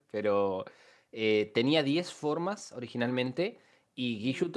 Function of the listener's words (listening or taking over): listening